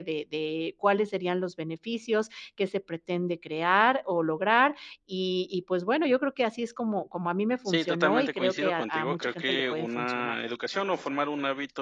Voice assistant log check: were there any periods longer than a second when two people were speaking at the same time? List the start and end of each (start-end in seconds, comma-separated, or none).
7.6-10.4